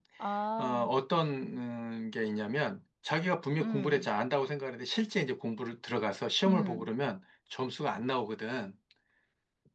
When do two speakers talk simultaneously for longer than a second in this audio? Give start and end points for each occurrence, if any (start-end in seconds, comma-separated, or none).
none